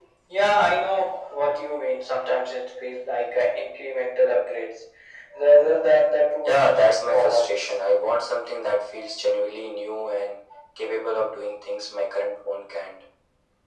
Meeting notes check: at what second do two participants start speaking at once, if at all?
6 s

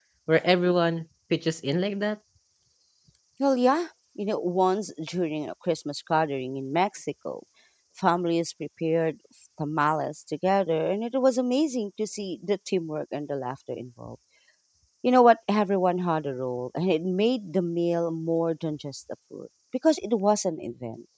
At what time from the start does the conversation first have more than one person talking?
none

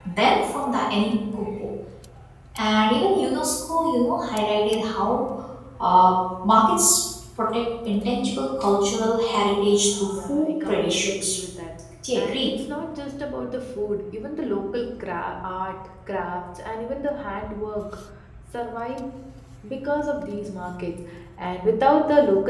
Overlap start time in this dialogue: 10 s

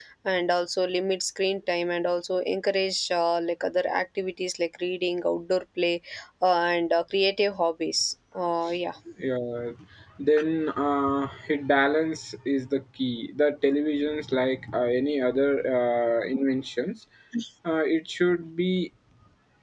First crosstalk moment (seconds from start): none

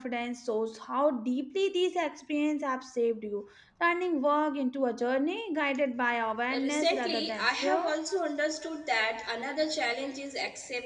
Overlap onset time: 7 s

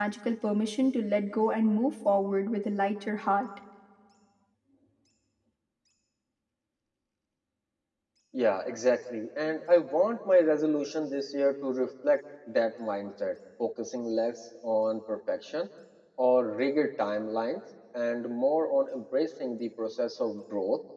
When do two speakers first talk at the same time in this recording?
none

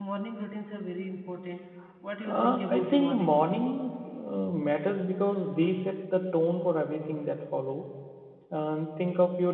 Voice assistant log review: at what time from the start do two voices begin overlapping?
2 s

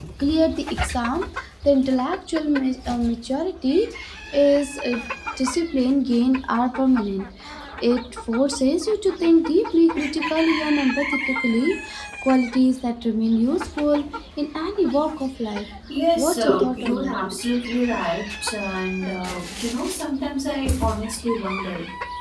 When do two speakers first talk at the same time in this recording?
16 s

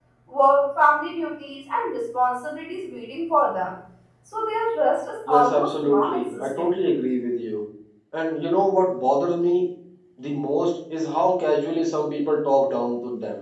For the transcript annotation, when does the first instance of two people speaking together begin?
5 s

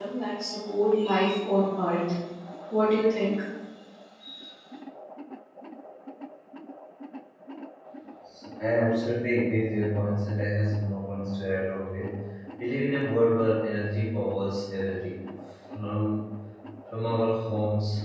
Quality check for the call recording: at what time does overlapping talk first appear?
none

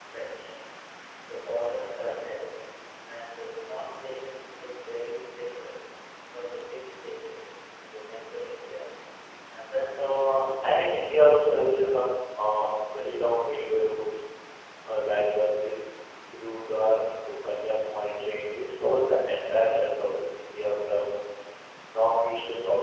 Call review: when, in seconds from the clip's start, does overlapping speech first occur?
10 s

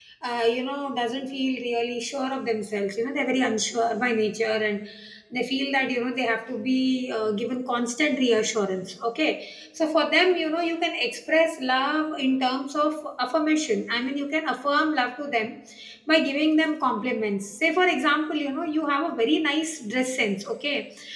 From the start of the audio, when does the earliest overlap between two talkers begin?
none

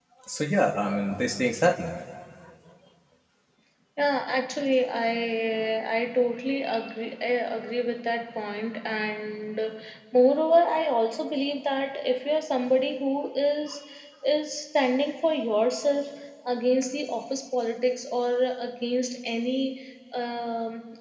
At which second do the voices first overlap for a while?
none

